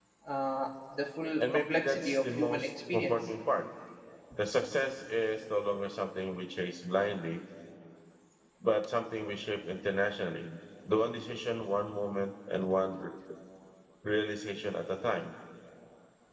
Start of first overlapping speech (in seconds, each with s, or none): 1.4 s